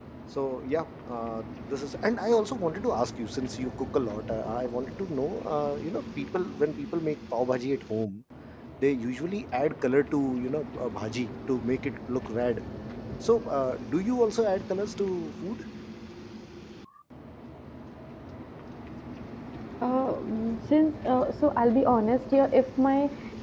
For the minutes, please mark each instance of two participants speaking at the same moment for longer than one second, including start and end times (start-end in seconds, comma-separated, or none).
none